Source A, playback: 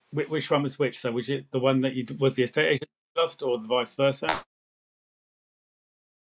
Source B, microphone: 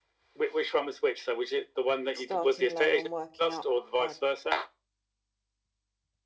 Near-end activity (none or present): present